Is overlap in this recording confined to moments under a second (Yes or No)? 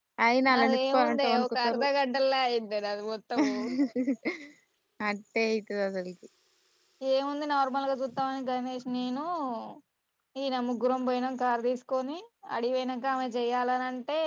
No